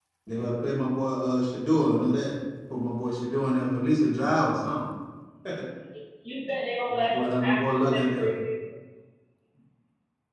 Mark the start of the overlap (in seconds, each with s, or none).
6.9 s